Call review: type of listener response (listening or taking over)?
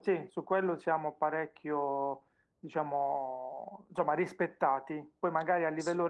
listening